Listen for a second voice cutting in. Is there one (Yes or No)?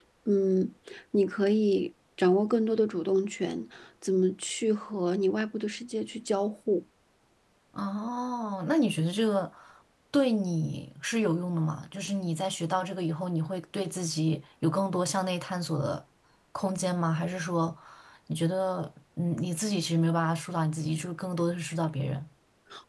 No